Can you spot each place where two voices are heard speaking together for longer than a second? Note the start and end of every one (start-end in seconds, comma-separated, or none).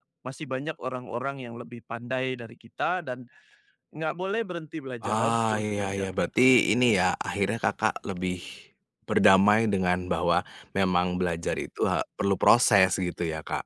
5.0-6.5